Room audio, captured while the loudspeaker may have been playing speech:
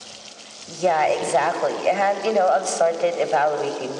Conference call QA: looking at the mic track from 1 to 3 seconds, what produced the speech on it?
echo only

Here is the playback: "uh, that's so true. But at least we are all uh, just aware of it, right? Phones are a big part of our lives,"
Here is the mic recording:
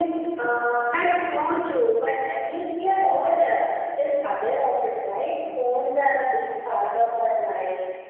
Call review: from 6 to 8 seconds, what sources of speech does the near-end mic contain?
echo only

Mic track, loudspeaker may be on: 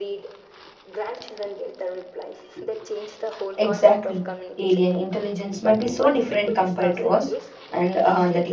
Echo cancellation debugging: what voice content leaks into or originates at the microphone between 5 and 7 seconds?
both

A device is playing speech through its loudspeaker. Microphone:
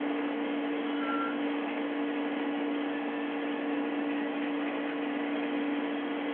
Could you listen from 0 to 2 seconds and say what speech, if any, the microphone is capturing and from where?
neither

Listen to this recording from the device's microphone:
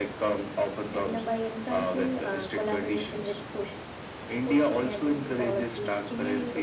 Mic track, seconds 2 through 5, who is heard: echo only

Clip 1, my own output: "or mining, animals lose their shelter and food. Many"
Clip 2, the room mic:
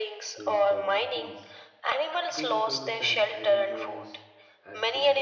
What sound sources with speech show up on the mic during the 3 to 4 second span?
both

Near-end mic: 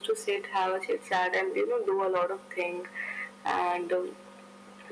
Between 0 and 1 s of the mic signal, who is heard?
echo only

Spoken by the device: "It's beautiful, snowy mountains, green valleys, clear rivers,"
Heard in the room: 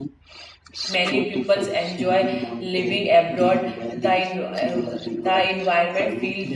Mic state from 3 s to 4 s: both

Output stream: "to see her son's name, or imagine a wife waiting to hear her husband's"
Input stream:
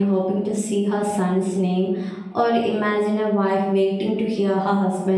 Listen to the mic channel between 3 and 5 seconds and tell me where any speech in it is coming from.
echo only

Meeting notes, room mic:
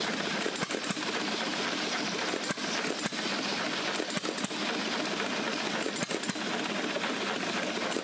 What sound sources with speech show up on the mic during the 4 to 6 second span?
neither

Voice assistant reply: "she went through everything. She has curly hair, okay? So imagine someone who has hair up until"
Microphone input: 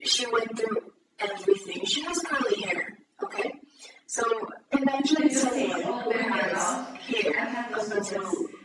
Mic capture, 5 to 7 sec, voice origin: both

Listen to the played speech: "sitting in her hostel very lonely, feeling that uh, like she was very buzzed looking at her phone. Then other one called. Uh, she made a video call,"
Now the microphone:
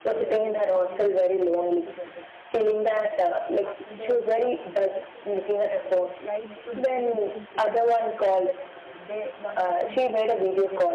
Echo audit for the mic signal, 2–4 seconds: both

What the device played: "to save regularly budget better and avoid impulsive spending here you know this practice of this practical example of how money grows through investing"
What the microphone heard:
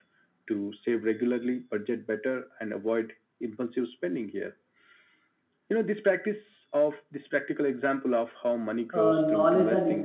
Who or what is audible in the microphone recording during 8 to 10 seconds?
both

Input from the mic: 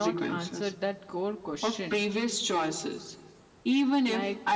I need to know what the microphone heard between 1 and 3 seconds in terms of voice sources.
both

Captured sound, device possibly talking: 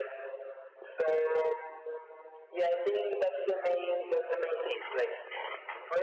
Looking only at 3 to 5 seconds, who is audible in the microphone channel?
echo only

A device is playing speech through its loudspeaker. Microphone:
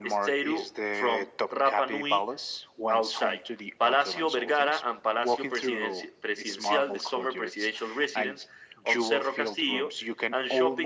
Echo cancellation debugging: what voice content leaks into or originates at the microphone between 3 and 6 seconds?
echo only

